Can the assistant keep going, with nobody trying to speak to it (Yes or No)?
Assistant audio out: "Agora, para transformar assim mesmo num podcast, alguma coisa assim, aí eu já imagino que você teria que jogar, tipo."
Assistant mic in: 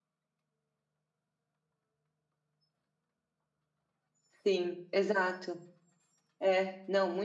No